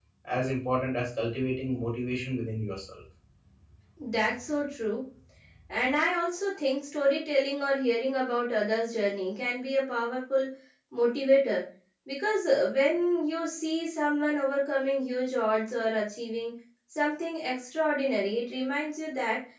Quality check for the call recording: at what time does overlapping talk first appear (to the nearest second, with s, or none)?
none